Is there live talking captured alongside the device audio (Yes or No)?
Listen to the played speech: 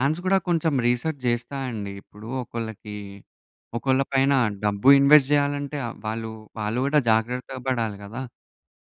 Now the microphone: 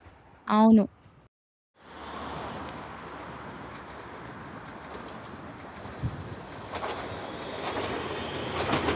Yes